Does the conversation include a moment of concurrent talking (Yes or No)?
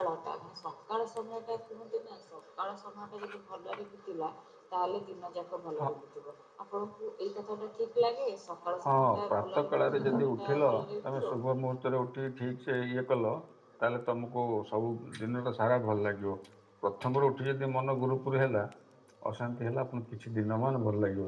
Yes